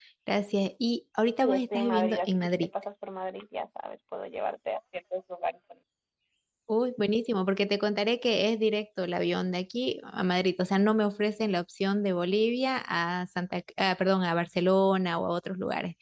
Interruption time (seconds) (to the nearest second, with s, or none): 1 s